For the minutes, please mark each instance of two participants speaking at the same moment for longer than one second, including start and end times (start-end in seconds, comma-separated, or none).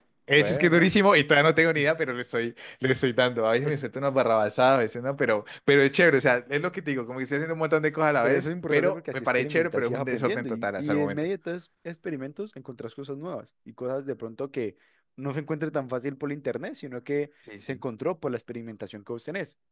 8.2-11.2